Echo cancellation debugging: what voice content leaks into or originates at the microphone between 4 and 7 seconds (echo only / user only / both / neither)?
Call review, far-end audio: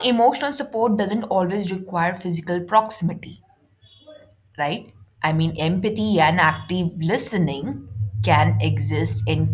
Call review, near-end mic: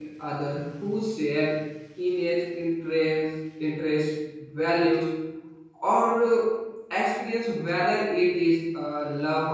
user only